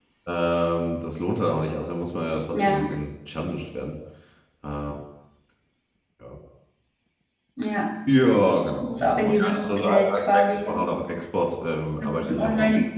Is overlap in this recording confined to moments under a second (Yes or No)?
No